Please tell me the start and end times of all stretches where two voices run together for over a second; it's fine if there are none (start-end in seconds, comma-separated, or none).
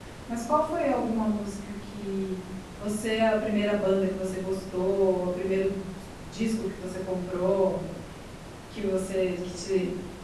none